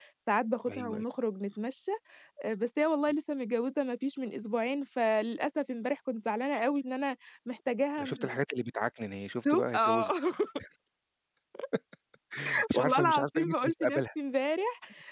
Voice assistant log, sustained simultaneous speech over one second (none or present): present